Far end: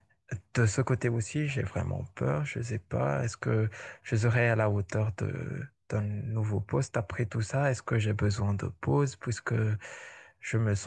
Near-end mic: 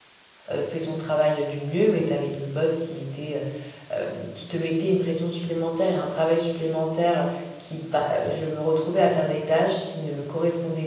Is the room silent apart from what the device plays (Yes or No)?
No